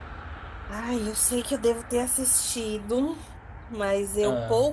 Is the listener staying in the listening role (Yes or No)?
Yes